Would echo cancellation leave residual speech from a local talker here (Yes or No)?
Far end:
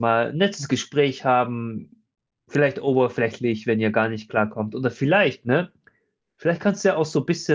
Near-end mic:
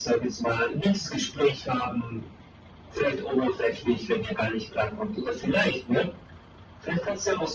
No